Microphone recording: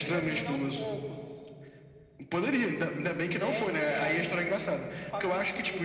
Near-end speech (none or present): none